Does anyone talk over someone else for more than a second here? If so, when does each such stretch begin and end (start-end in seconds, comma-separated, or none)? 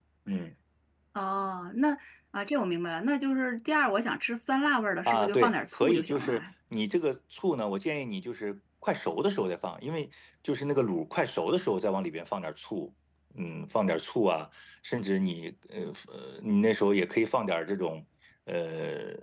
5.1-6.4